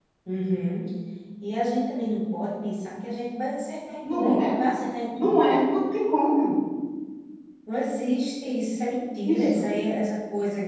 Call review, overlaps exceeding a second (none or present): none